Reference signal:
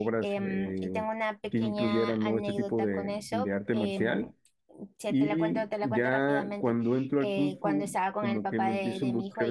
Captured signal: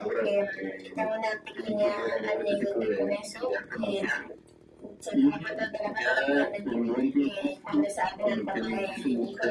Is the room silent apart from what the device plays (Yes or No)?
Yes